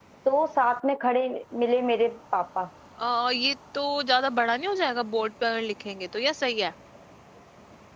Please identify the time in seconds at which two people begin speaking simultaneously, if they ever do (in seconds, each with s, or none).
none